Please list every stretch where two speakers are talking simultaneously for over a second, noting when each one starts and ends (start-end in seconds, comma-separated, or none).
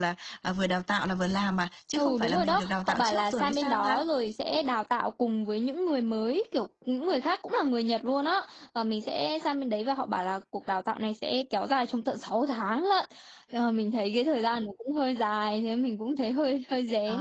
1.9-4.0